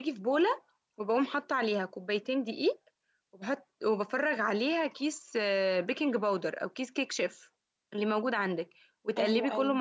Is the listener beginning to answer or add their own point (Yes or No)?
No